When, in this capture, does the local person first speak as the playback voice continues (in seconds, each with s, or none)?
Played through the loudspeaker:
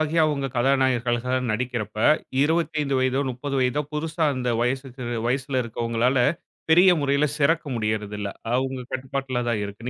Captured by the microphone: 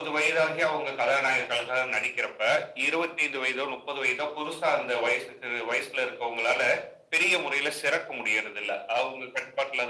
none